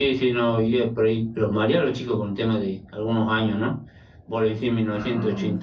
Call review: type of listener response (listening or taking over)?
listening